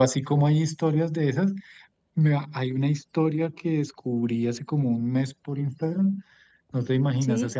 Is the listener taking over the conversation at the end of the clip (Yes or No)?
No